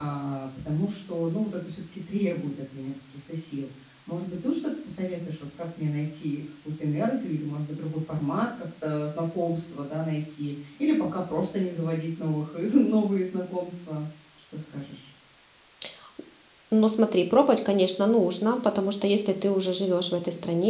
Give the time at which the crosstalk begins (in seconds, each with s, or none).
none